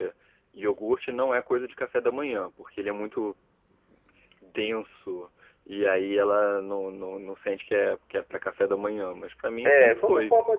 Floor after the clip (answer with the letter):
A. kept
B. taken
B